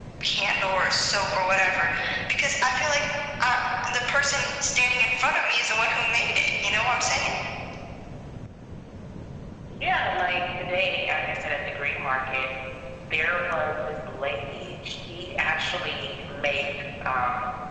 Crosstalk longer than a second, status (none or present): none